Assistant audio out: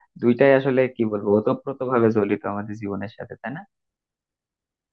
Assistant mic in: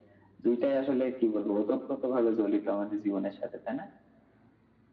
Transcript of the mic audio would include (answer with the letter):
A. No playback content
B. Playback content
B